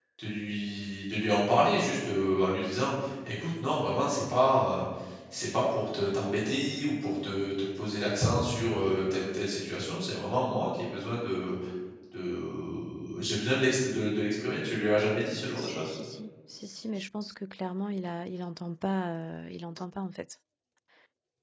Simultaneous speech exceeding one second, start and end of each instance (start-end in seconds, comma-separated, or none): none